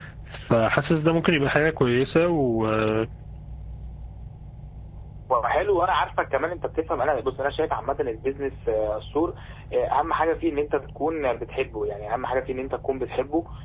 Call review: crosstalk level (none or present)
none